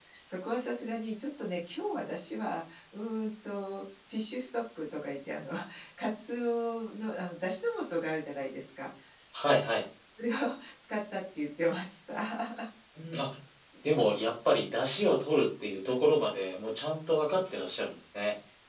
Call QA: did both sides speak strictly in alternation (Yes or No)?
Yes